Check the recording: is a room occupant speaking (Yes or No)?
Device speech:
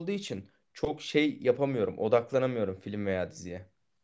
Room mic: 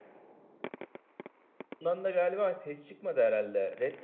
Yes